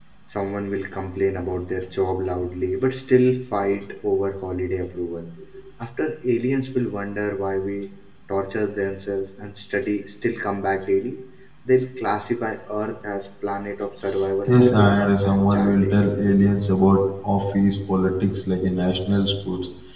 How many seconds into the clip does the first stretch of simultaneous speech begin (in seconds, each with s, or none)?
14.5 s